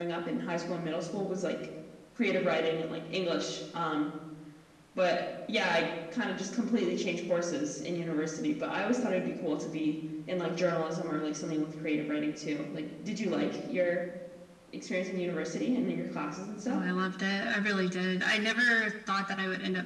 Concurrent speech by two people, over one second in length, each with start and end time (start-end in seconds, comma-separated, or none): none